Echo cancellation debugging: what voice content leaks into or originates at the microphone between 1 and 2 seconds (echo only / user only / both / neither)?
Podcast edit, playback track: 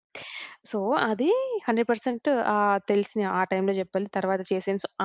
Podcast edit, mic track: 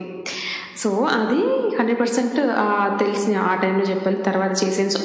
echo only